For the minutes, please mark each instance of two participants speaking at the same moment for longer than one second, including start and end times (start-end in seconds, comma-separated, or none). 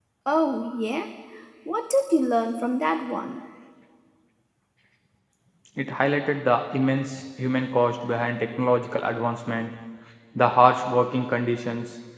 none